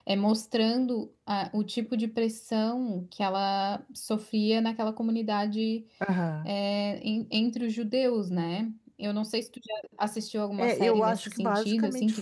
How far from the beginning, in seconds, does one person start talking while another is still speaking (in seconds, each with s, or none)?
10.6 s